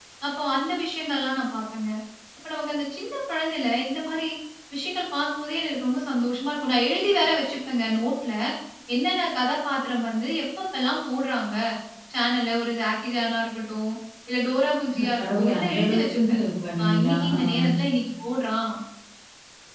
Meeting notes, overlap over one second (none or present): present